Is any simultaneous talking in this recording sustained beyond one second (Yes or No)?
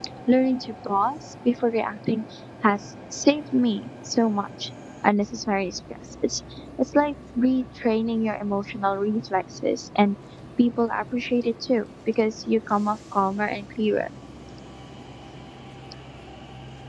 No